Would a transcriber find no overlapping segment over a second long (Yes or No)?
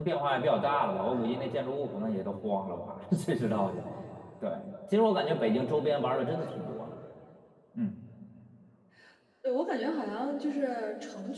Yes